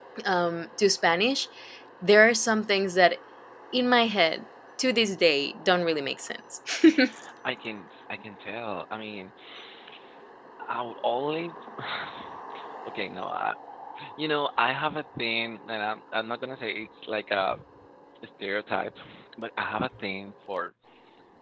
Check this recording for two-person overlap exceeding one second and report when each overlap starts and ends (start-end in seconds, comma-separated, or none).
none